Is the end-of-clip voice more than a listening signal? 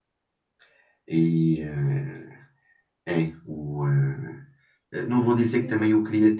No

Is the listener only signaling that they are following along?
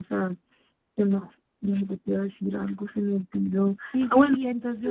No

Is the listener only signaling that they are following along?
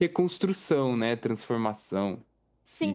No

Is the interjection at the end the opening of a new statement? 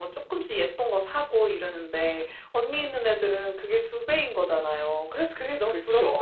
Yes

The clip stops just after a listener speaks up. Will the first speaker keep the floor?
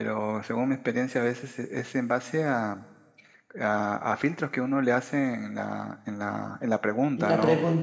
Yes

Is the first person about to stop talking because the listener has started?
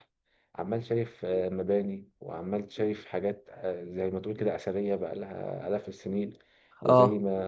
No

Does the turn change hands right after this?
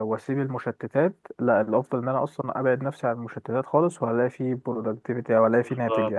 Yes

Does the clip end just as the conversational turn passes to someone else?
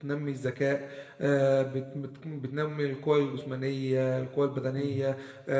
No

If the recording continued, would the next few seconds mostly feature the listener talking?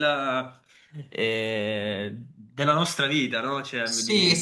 Yes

